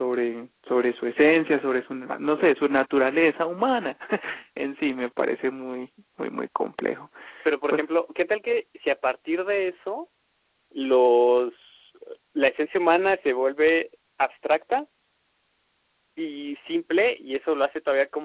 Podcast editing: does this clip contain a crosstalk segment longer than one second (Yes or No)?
No